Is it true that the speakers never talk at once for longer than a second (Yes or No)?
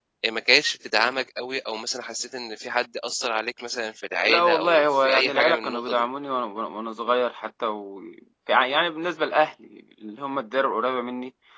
No